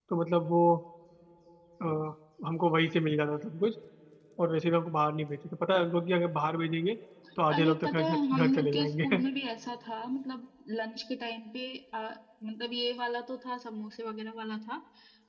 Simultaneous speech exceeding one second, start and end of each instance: 7.5-9.0

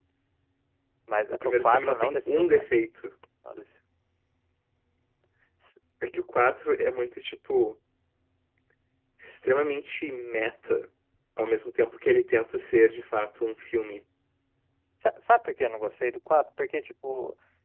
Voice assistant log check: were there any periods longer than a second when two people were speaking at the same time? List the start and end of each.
1.3-2.7

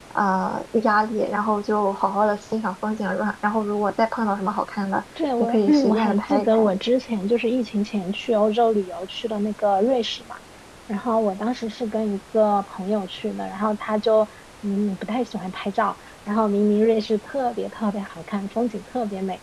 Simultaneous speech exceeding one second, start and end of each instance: 5.4-6.7

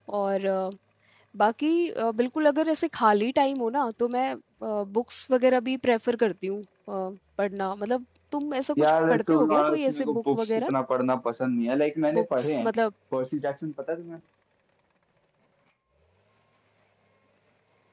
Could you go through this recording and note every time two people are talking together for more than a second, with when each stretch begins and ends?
8.8-10.7

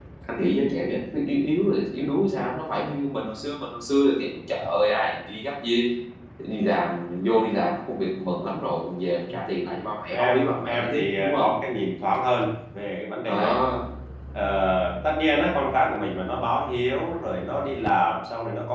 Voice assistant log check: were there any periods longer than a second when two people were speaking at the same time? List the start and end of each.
10.1-11.5

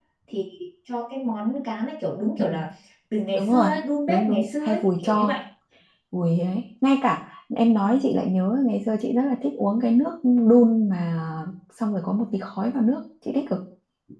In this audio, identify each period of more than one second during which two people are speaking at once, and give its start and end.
4.1-5.4

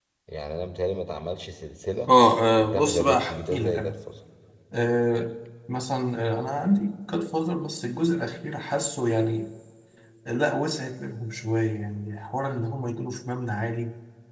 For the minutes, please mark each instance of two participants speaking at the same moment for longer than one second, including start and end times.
2.7-4.0

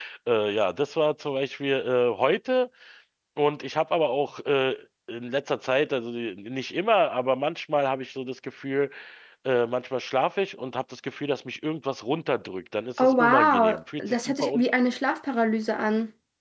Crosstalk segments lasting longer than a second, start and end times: 13.0-14.5

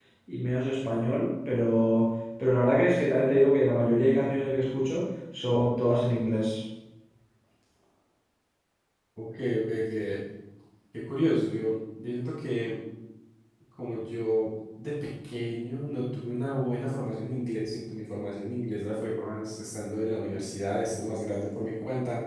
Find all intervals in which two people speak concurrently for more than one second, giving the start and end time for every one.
none

